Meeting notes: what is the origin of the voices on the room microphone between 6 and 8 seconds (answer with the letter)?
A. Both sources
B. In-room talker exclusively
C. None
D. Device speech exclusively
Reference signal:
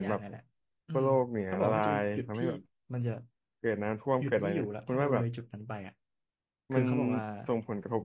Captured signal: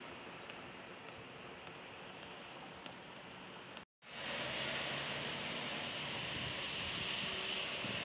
C